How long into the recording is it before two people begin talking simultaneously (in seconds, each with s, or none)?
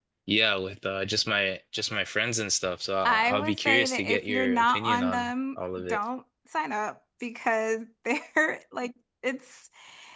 3.0 s